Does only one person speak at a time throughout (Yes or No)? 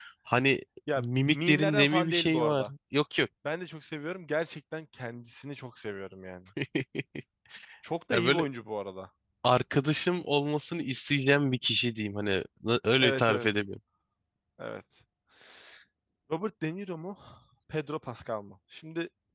No